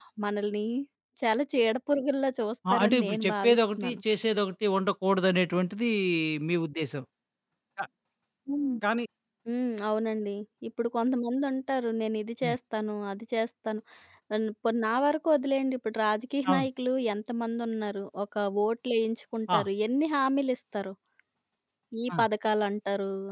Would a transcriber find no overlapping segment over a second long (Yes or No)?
No